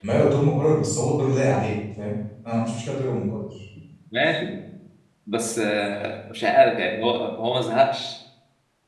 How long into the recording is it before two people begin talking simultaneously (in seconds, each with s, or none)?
none